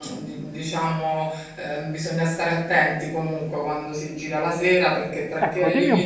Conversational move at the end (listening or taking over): taking over